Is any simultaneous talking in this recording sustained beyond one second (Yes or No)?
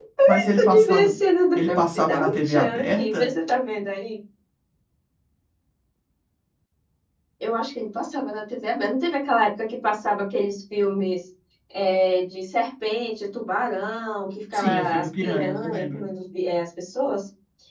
Yes